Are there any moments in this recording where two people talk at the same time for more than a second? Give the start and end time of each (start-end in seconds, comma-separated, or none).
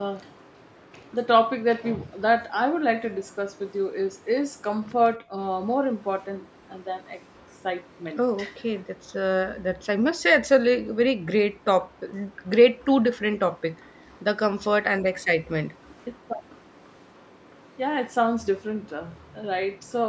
none